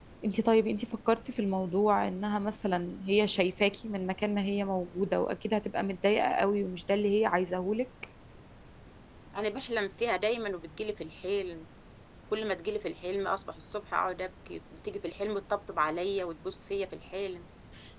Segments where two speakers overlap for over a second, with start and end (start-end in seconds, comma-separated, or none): none